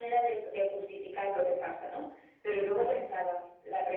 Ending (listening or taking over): listening